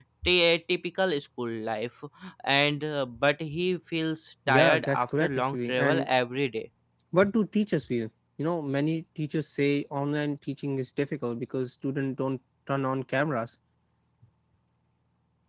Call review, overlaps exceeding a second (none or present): present